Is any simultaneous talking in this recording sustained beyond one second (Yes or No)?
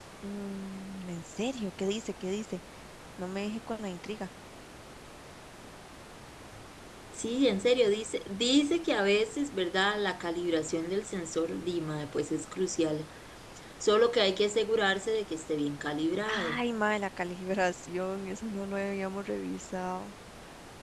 No